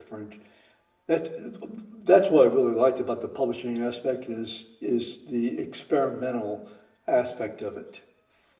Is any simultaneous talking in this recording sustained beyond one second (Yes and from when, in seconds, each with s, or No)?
No